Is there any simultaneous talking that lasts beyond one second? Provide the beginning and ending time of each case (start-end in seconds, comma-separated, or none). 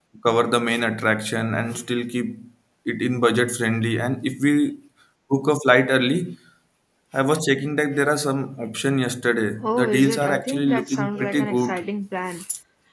9.6-11.8